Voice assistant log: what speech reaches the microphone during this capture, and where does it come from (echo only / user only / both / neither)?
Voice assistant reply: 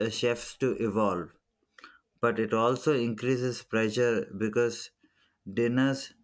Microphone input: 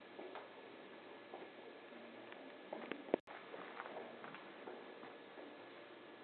neither